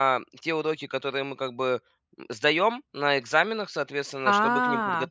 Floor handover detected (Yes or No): No